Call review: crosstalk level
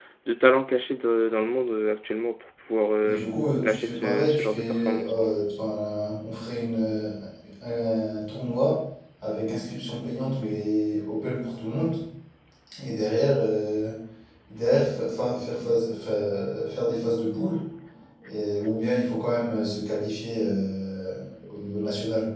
present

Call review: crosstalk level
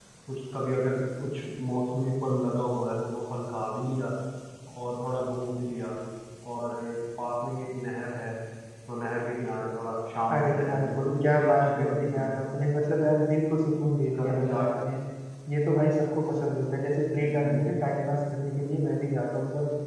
present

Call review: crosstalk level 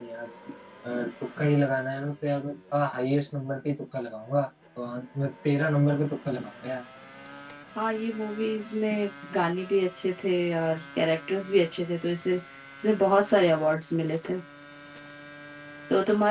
none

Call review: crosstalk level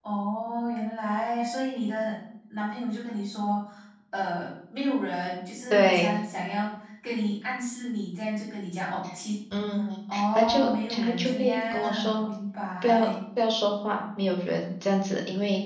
present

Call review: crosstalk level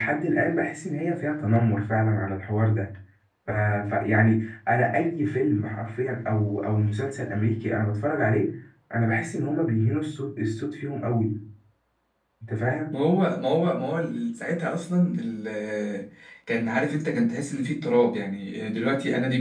none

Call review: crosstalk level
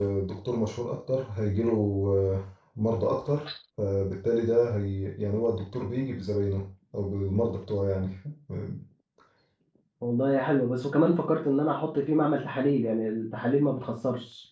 none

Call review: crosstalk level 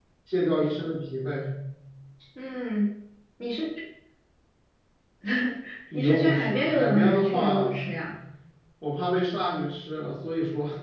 present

